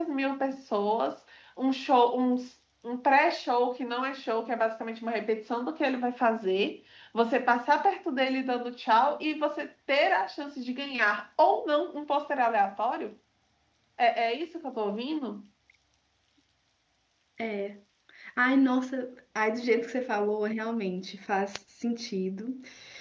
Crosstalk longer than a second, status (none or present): none